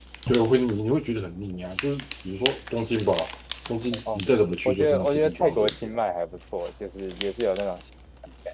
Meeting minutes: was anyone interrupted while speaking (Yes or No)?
Yes